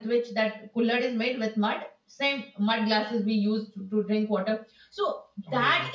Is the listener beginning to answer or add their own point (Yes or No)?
No